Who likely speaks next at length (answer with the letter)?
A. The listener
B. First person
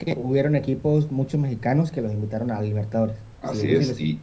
A